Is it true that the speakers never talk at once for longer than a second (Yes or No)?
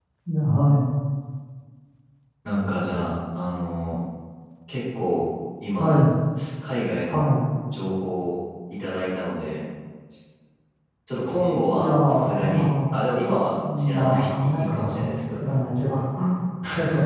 No